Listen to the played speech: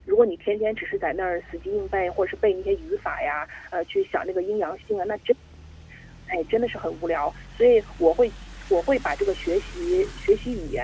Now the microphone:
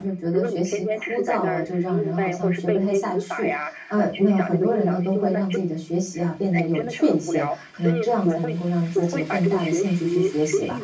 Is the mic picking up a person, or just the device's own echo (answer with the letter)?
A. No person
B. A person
B